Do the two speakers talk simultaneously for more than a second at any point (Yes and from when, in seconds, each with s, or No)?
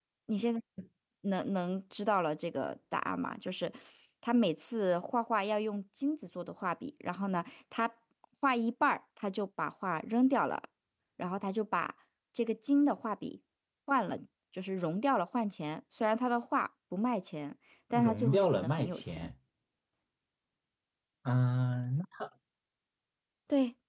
Yes, from 17.9 s